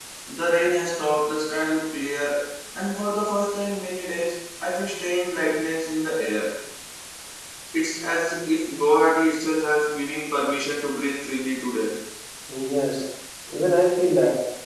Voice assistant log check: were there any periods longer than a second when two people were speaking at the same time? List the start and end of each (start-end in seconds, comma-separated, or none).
none